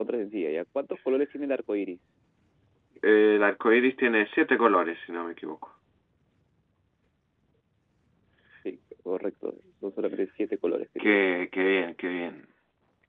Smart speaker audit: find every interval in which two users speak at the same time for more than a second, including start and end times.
none

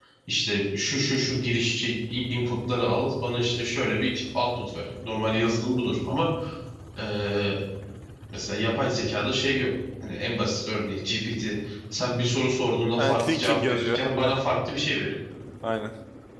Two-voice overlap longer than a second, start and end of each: 13.0-14.4

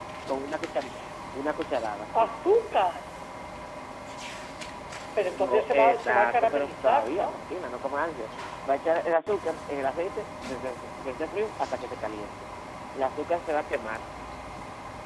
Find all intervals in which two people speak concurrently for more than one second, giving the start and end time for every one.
5.3-7.3

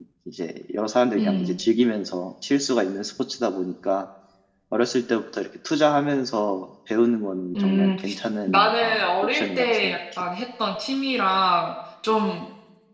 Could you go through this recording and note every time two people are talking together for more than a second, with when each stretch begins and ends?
8.5-10.2

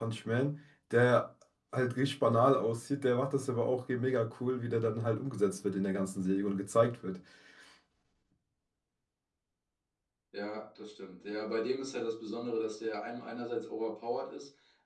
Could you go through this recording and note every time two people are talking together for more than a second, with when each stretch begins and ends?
none

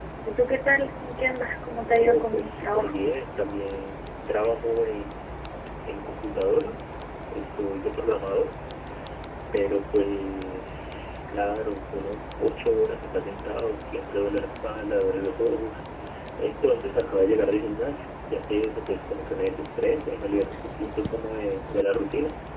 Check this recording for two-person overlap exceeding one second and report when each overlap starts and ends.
1.8-3.0

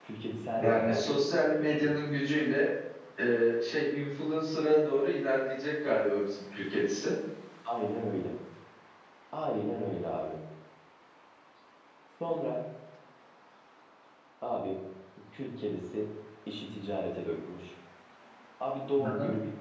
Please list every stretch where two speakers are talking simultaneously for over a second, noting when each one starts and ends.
0.6-1.9

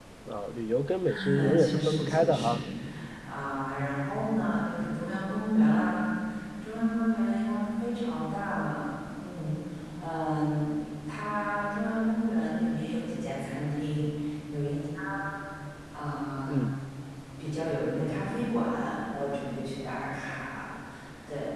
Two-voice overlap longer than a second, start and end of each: 1.1-2.6

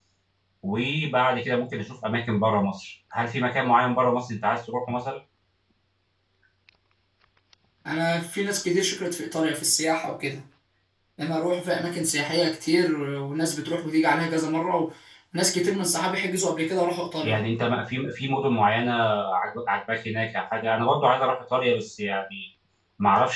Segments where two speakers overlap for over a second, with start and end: none

